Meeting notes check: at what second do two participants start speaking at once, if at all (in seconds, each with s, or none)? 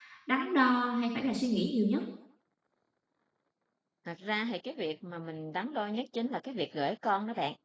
none